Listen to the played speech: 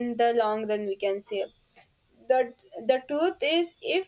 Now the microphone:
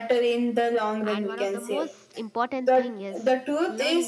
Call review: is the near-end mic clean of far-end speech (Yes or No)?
No